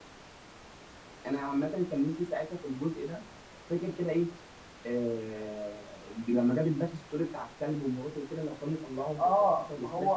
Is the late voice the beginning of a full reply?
Yes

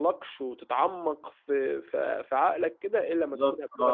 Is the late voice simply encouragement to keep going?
No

